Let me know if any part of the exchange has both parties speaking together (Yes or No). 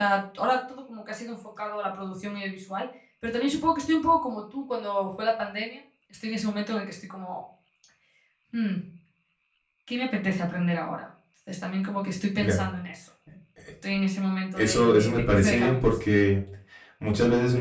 Yes